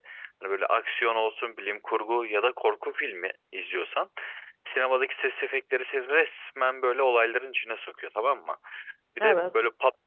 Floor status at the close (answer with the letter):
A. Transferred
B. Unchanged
B